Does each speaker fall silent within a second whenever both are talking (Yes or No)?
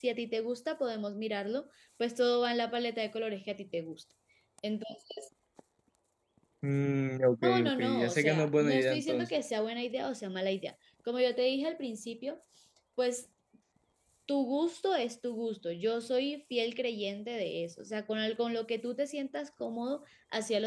No